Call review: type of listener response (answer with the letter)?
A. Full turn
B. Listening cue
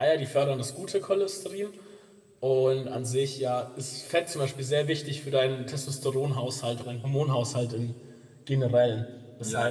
A